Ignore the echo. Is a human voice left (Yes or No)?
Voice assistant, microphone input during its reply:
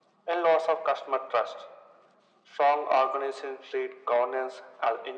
No